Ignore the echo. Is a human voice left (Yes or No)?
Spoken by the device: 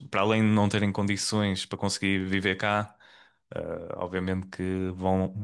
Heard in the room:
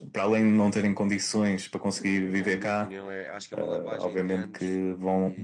Yes